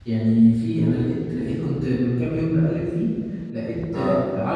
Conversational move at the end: listening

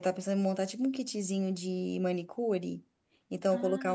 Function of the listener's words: listening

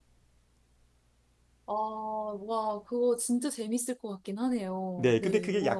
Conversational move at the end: taking over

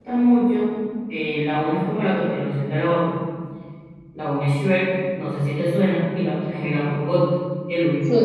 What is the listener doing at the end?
taking over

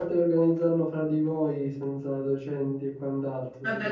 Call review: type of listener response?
taking over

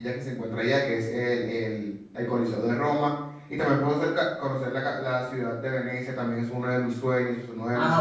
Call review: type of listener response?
taking over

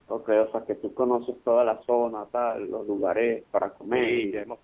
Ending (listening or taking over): taking over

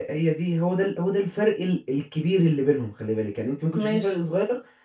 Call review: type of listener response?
listening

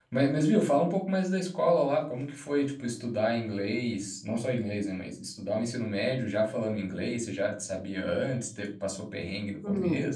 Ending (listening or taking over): taking over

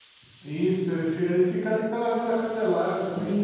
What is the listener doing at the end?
taking over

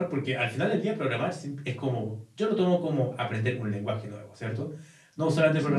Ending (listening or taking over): listening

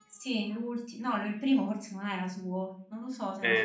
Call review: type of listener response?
taking over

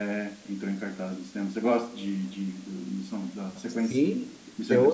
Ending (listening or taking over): taking over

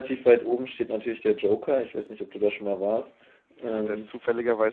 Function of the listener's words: taking over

